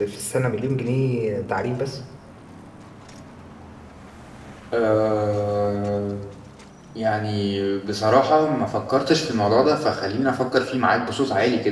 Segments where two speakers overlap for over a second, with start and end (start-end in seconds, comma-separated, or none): none